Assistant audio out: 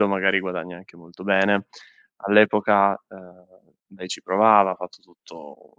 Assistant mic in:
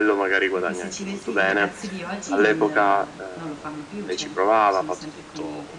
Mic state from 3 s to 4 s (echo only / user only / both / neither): both